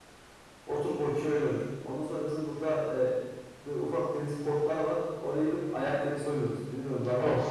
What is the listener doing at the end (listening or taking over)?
taking over